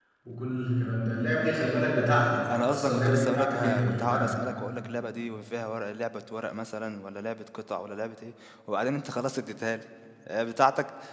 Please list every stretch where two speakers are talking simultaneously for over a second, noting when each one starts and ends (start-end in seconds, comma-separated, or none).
2.7-4.3